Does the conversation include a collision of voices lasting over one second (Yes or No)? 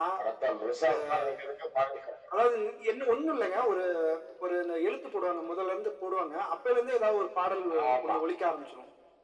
No